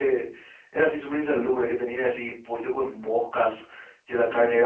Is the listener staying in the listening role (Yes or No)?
Yes